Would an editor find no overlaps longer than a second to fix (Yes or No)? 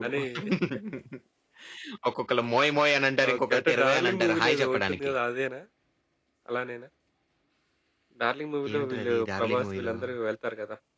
No